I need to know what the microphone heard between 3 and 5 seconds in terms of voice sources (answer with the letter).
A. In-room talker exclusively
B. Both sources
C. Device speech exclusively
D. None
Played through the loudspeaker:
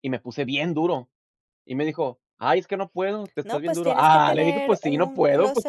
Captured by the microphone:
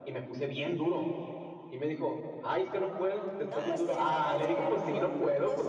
B